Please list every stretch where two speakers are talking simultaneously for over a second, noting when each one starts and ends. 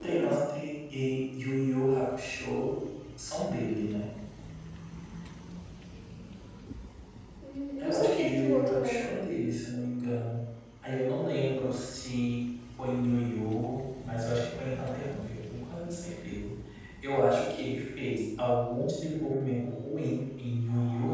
7.8-9.1

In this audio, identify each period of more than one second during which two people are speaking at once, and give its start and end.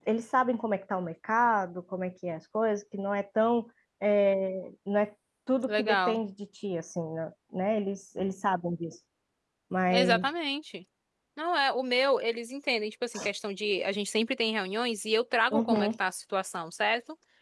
none

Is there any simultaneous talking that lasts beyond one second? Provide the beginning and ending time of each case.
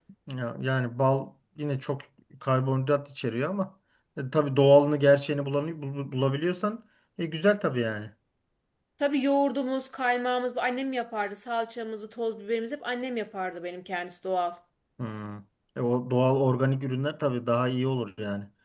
none

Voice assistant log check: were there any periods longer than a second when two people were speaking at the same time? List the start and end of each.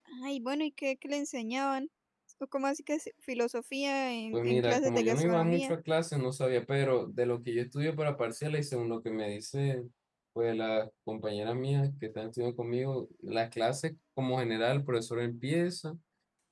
4.3-5.7

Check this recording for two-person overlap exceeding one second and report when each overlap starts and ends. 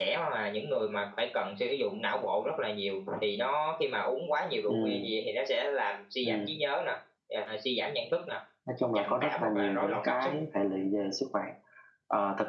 8.9-10.3

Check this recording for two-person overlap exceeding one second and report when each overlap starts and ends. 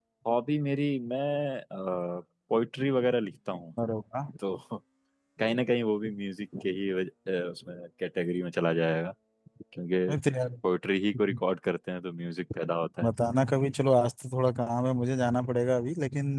none

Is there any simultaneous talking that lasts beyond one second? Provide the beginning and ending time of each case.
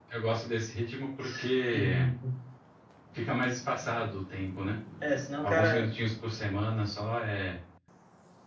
none

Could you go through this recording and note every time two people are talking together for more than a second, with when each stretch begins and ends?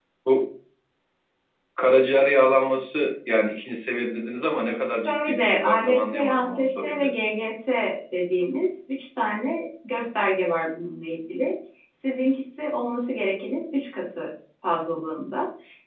5.0-7.1

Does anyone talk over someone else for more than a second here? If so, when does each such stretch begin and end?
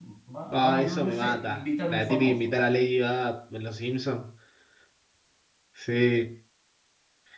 0.5-2.6

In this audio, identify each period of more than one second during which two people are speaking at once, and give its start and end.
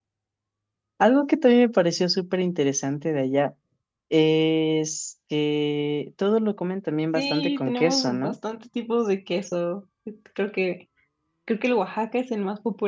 7.1-8.4

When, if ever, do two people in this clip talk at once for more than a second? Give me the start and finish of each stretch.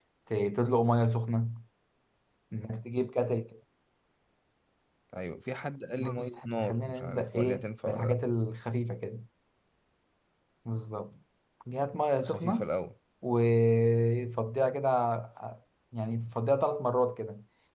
6.0-8.2

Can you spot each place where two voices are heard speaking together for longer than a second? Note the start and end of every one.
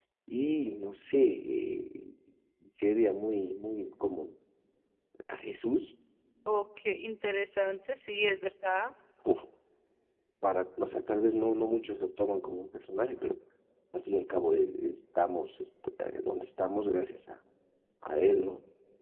none

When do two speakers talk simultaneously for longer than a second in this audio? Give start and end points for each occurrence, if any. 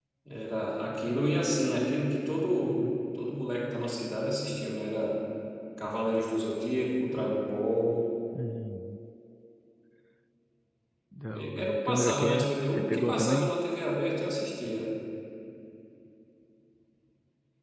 11.6-13.6

